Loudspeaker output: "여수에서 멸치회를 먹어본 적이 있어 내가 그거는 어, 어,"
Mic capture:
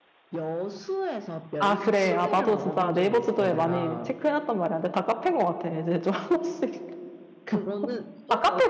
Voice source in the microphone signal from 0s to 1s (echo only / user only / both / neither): echo only